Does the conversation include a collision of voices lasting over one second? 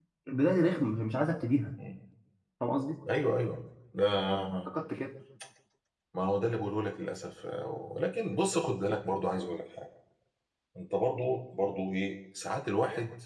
No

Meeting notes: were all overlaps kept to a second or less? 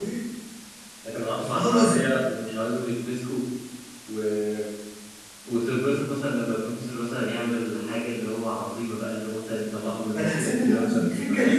No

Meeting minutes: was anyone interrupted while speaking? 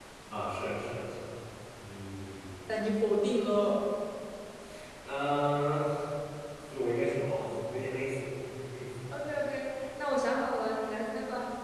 No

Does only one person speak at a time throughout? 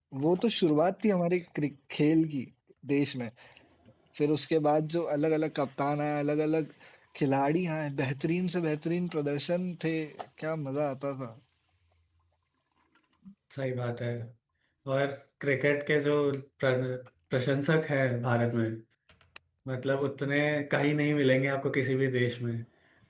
Yes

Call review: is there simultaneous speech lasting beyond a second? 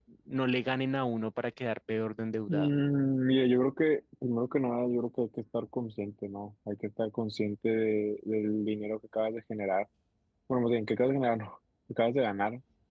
No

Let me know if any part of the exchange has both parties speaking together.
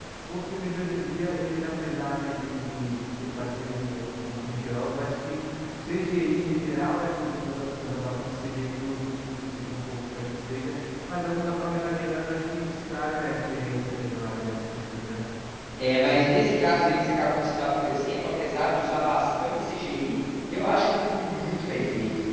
No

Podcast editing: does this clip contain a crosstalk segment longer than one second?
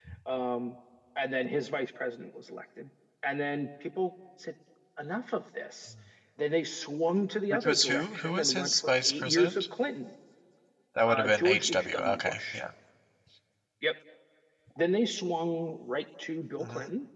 Yes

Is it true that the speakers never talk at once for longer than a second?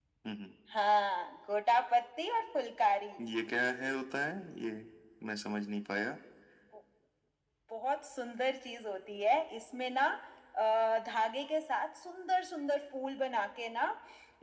Yes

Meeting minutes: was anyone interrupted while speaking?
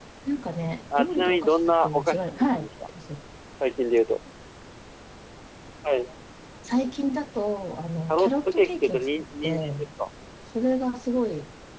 Yes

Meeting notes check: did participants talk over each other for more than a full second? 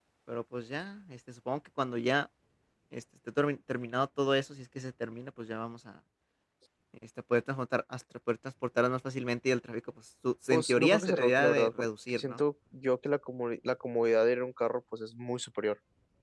Yes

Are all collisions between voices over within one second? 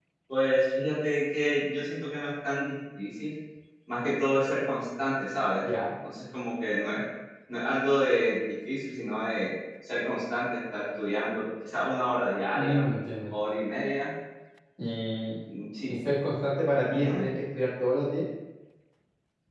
Yes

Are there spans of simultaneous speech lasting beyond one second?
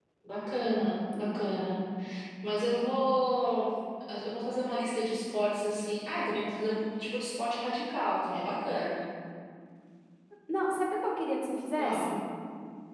No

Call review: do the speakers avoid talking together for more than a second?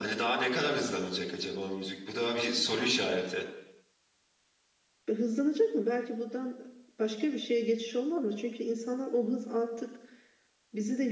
Yes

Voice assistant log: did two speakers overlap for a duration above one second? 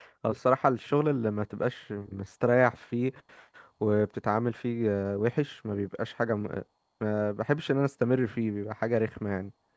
No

